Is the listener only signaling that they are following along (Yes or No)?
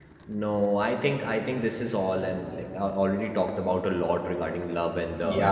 No